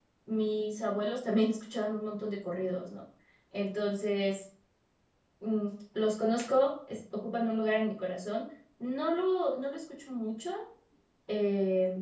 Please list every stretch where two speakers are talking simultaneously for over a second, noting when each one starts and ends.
none

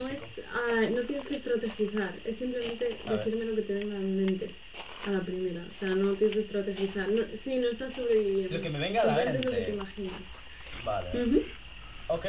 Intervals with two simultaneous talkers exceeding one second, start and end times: 8.5-9.8

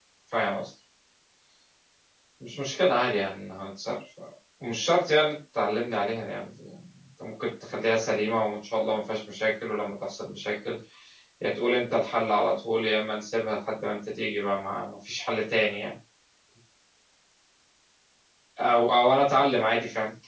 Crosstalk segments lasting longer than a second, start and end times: none

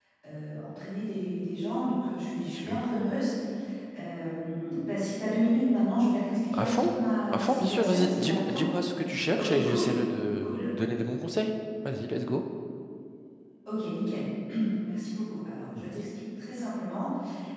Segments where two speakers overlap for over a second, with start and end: 7.3-8.6

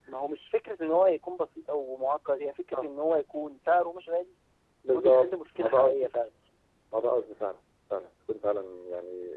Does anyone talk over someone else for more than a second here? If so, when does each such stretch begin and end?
4.9-6.1

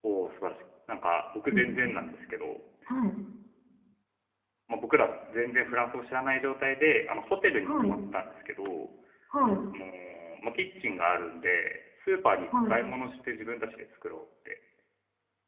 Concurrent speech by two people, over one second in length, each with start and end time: none

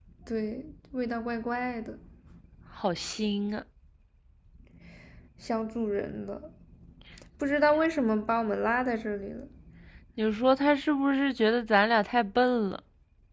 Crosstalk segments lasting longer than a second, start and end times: none

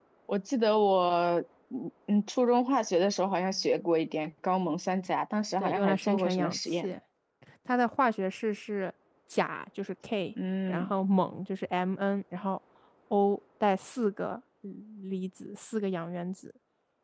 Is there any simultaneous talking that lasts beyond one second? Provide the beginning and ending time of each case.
5.6-6.9

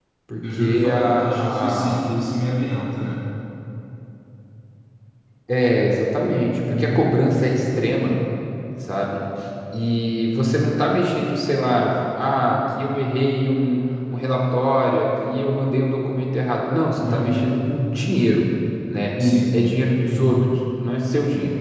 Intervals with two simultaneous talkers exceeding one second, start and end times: 0.6-2.0

